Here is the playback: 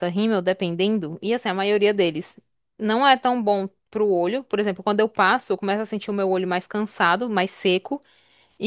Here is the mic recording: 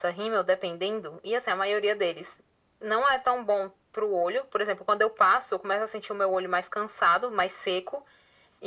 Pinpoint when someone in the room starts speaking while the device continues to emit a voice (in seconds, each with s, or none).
none